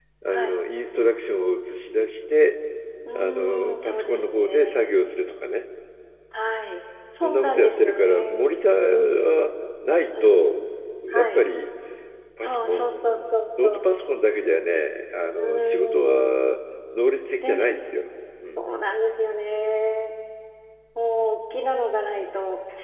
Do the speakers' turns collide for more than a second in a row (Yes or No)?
Yes